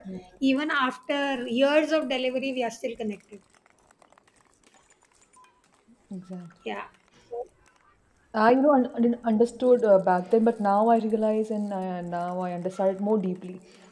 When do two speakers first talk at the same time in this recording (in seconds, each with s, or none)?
none